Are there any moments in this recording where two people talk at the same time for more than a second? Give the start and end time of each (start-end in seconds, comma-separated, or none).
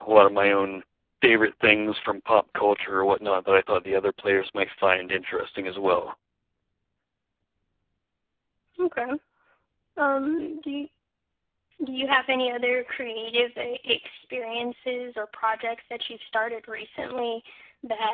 none